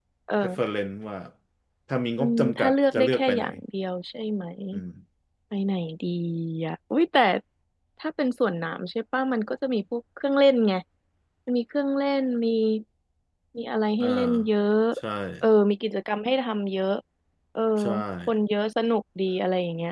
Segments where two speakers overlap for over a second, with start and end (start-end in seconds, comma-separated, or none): 2.2-3.5